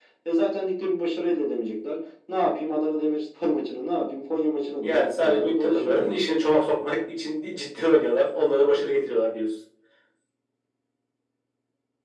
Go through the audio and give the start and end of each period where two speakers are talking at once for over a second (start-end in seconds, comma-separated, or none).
4.8-6.3